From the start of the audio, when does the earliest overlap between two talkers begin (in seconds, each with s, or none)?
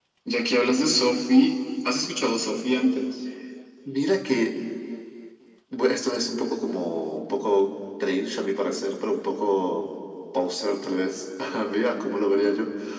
none